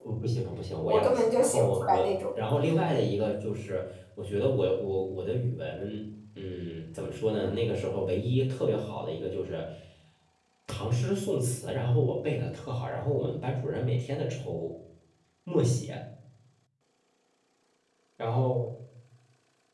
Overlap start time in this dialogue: 0.8 s

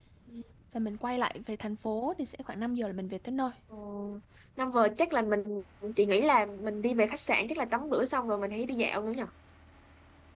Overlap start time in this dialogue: none

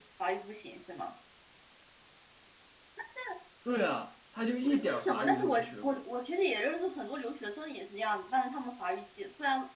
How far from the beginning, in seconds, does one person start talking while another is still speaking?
4.6 s

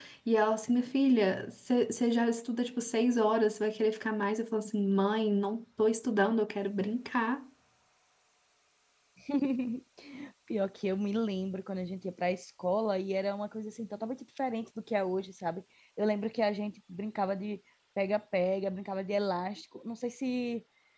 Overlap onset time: none

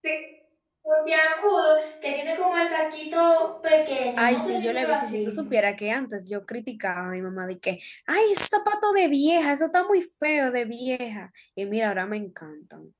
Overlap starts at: 4.2 s

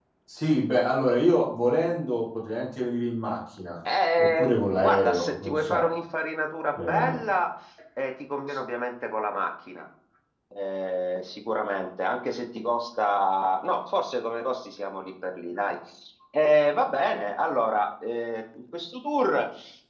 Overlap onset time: 4.2 s

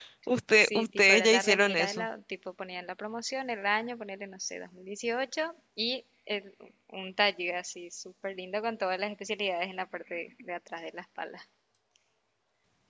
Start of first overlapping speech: 0.6 s

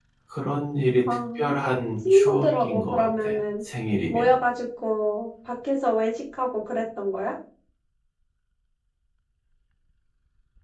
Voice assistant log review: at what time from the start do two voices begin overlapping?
1.1 s

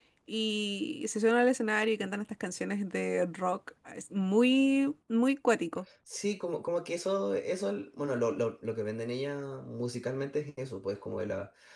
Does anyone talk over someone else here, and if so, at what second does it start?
none

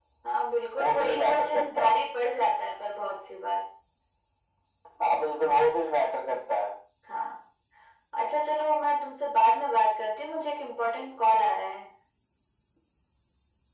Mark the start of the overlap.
0.8 s

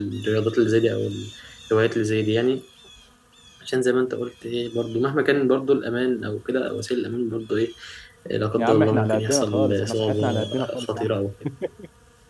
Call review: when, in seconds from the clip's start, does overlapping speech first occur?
8.6 s

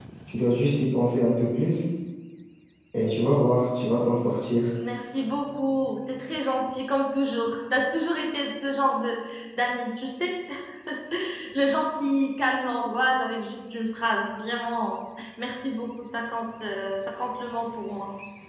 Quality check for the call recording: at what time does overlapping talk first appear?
none

